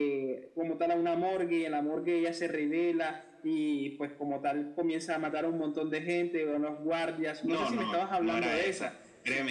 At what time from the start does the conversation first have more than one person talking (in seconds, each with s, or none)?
7.4 s